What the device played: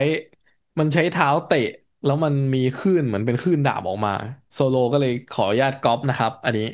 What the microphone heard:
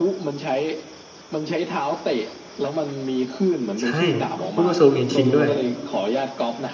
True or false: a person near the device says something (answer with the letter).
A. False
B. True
B